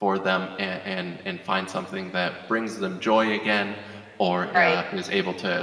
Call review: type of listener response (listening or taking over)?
listening